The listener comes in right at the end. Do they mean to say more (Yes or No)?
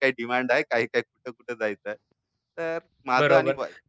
Yes